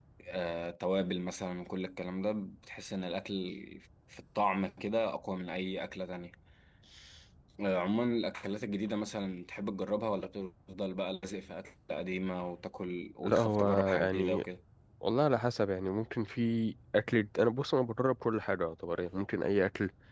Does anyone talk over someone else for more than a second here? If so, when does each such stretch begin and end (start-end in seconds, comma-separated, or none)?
13.2-14.4